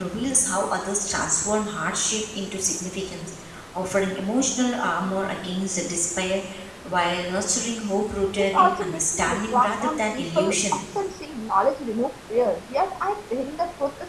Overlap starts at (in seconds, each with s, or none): 8.4 s